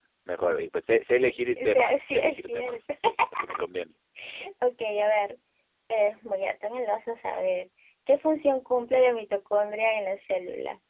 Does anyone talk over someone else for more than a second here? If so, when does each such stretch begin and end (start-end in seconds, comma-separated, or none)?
1.6-2.8